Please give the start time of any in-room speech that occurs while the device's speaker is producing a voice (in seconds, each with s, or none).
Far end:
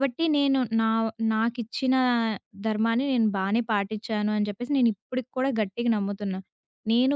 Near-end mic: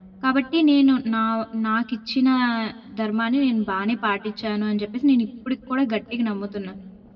none